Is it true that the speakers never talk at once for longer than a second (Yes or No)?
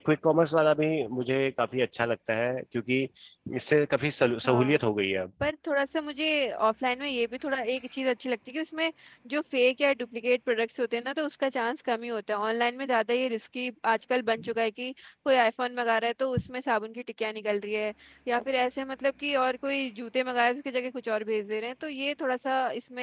Yes